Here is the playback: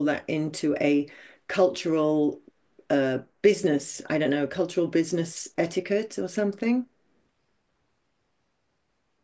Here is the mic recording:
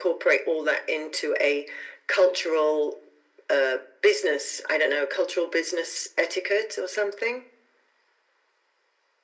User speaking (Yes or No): No